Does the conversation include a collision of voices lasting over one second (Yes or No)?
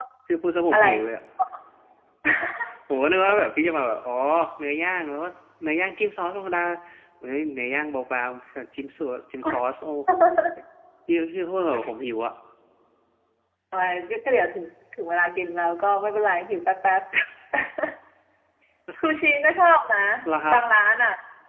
No